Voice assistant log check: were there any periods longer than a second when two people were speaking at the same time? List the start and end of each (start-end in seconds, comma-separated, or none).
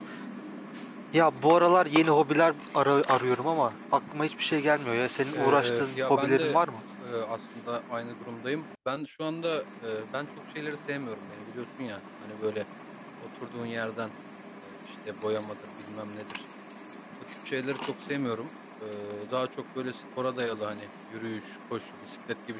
5.3-6.6